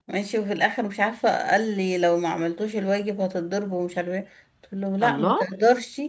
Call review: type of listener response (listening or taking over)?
listening